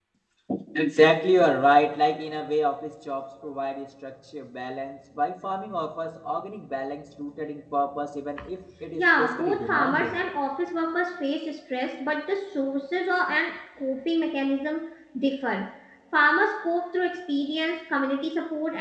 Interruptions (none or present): present